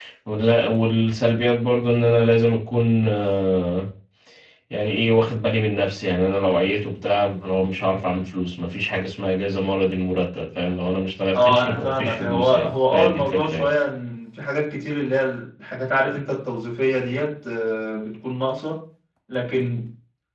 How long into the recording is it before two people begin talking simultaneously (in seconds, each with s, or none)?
11.3 s